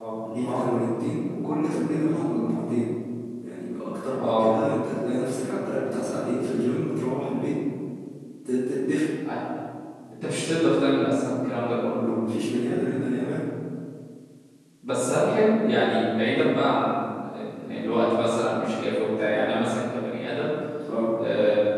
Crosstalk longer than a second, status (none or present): none